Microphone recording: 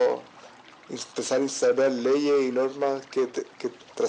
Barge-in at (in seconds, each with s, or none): none